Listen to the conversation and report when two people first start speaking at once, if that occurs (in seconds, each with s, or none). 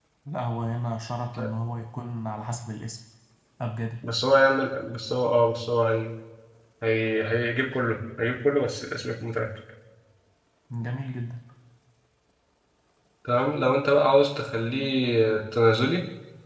none